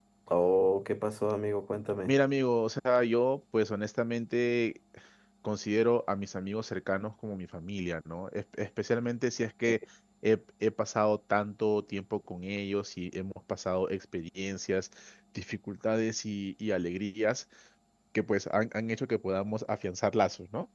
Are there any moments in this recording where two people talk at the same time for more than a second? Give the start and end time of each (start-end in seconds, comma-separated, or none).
none